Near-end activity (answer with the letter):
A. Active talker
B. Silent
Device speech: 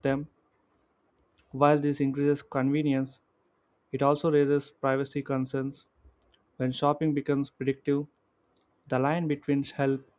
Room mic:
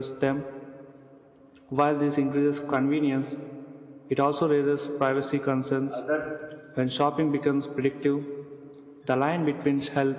A